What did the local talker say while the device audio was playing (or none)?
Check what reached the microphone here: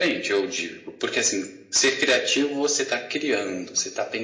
none